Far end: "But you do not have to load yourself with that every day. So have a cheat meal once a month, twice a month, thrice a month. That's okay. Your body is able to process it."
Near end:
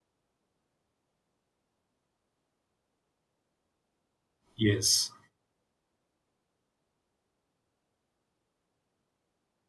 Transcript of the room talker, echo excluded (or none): yes